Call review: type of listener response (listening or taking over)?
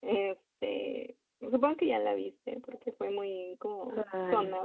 listening